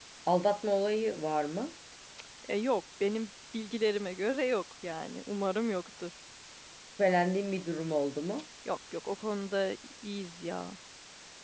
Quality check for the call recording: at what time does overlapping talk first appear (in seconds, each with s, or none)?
none